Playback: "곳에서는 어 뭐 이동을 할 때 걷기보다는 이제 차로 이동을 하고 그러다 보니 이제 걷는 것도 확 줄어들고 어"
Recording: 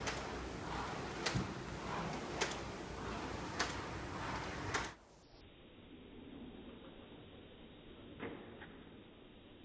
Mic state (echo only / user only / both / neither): neither